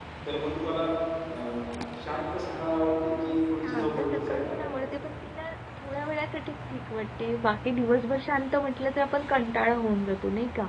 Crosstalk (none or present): present